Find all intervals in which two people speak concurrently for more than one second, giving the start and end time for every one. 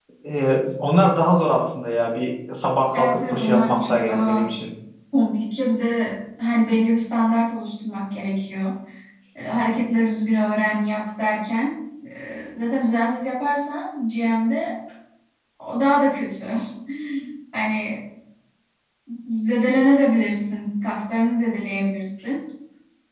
2.9-4.5

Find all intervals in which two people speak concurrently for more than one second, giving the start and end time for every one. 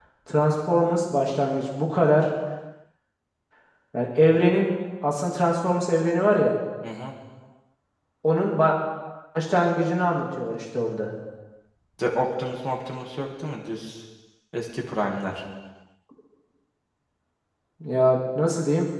none

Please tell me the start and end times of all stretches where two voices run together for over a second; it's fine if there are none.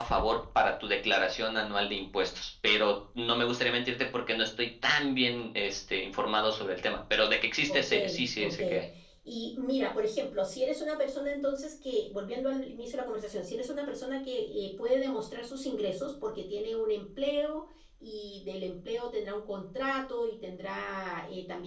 none

